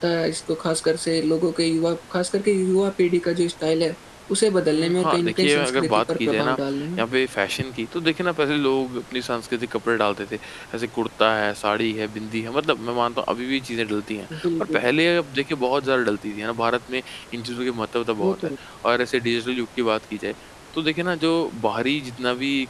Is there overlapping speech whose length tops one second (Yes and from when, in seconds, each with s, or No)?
Yes, from 4.7 s